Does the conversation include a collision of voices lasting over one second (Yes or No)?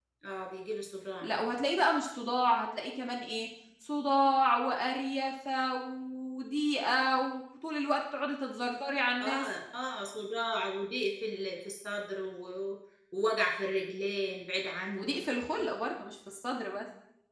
No